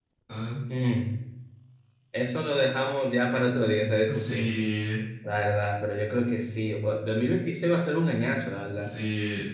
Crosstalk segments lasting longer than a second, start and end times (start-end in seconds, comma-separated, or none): none